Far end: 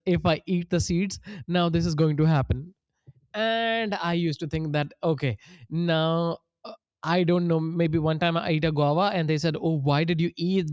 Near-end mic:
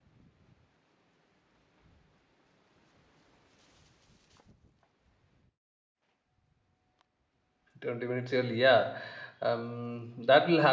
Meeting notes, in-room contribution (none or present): present